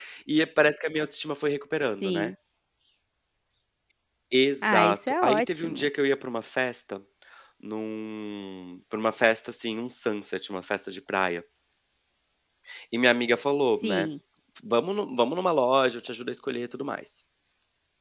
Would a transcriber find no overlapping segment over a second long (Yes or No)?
No